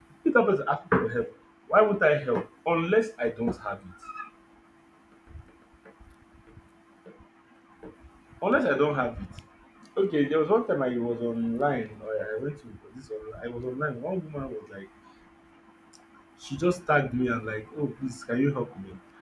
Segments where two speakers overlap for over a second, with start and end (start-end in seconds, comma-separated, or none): none